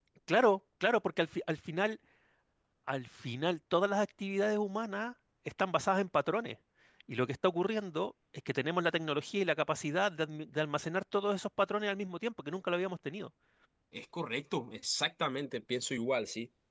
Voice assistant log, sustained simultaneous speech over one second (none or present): none